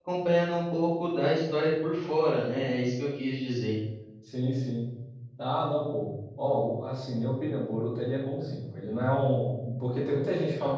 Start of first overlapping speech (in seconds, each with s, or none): none